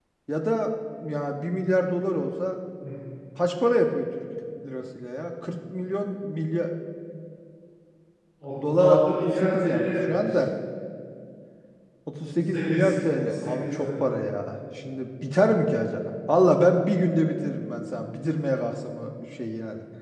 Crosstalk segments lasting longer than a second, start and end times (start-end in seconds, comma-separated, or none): 8.7-10.4, 12.4-13.9